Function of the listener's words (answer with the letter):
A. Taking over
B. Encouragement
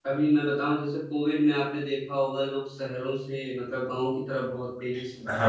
A